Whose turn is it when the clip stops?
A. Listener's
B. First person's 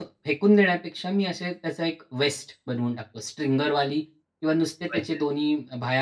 B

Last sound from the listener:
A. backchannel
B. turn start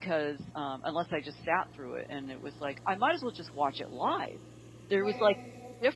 A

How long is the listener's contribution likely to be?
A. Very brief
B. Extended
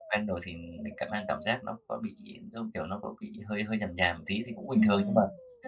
B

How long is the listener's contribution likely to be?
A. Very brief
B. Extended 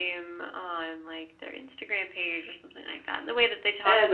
A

